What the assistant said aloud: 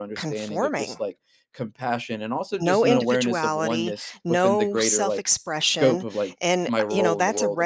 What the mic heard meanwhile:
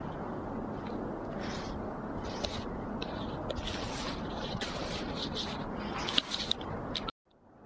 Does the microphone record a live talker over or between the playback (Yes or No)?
No